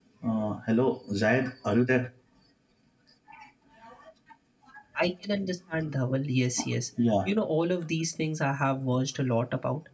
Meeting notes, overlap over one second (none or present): none